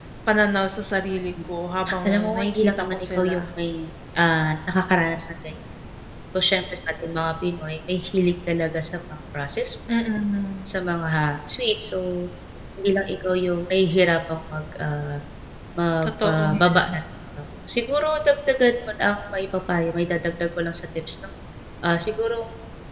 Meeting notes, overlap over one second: present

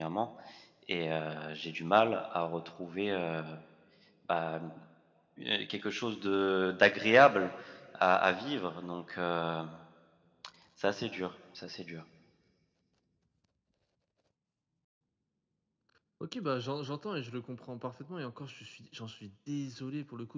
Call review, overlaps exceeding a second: none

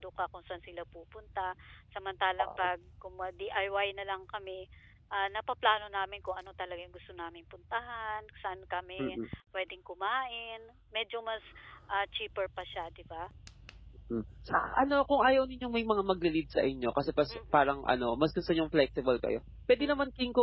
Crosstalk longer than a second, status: none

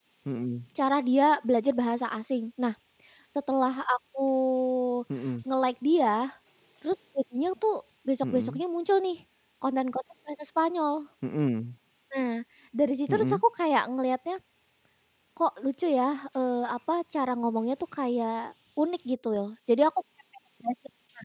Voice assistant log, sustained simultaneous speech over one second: none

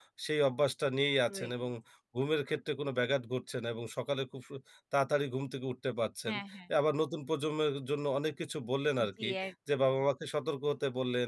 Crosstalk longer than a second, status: none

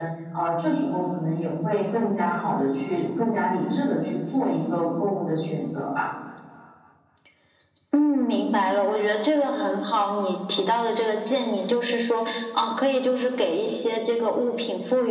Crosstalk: none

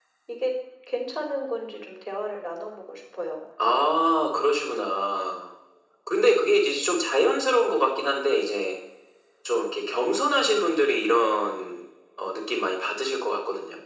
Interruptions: none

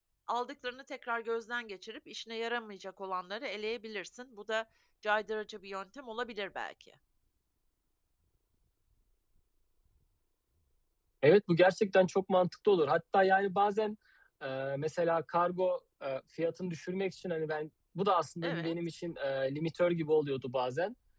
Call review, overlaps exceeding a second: none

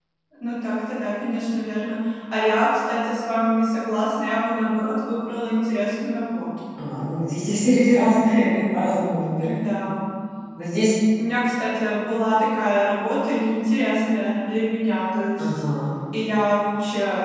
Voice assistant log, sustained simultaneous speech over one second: none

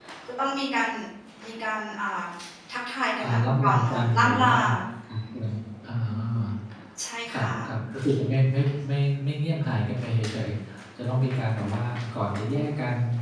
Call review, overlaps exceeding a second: present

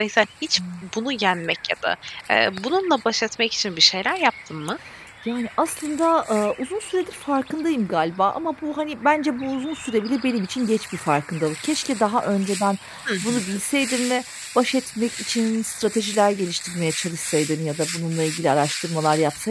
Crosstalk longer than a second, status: none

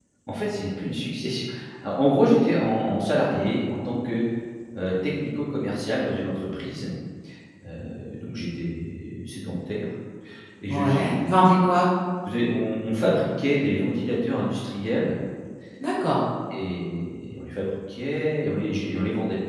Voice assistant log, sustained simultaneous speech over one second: none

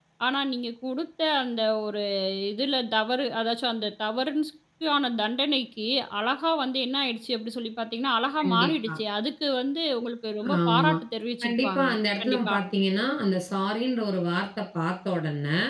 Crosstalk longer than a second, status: none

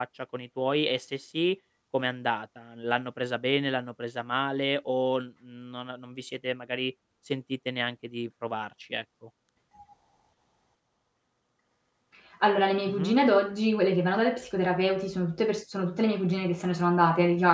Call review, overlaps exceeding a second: none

